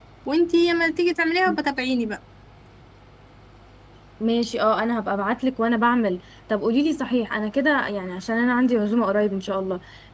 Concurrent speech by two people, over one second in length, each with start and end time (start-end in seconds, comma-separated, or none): none